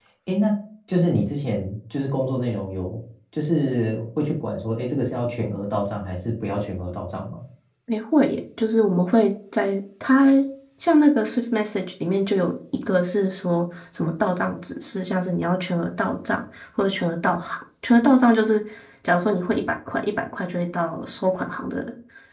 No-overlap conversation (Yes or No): Yes